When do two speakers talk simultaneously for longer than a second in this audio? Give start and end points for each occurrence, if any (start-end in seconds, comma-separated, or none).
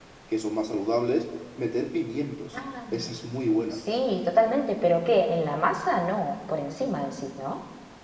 none